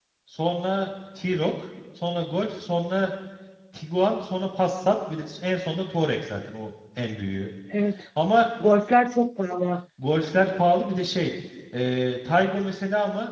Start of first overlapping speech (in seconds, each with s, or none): none